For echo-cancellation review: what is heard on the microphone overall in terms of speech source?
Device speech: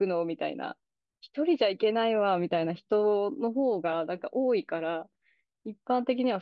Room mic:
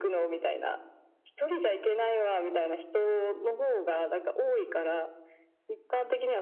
echo only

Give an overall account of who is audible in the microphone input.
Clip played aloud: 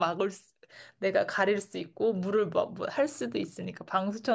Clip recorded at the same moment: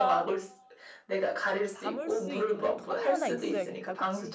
both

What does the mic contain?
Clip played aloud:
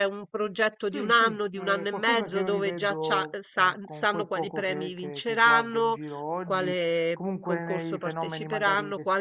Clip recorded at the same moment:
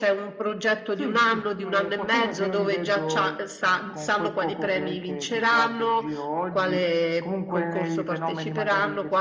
echo only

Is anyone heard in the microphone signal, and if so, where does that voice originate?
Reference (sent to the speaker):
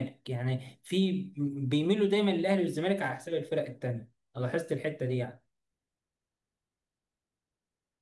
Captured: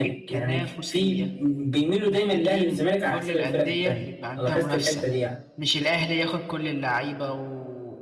both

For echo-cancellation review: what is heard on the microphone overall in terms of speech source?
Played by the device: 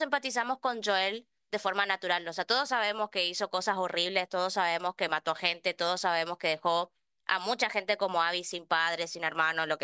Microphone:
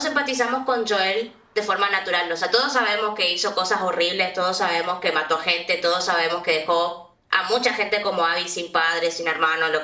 echo only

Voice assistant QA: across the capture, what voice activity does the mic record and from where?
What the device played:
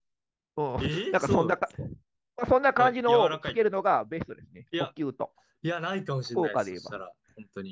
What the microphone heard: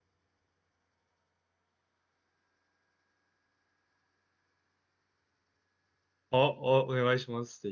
user only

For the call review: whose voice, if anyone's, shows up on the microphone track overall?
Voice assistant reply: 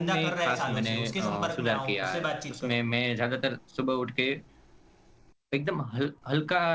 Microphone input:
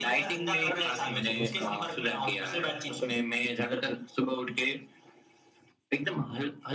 echo only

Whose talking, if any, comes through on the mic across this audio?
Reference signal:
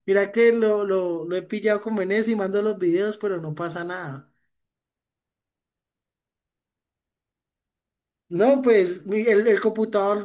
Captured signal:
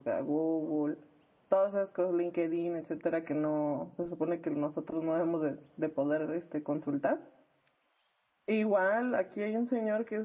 user only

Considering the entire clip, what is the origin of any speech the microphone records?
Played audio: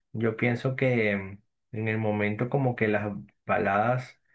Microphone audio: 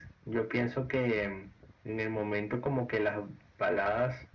echo only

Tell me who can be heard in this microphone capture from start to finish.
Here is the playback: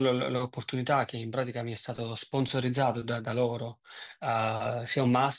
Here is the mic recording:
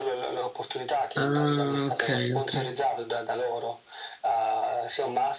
both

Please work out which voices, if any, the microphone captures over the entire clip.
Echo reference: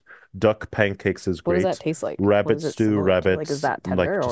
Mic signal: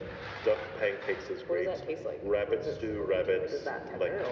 echo only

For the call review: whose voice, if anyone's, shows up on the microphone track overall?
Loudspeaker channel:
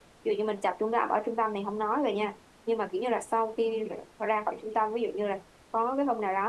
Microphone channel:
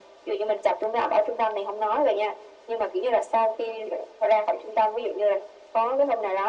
echo only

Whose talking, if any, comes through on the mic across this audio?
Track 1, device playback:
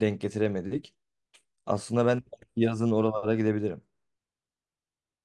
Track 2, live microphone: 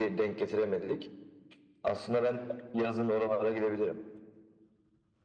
echo only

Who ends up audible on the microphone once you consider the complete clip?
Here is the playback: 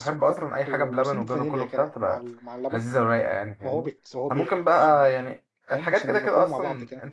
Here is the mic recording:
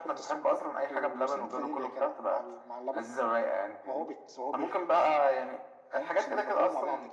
echo only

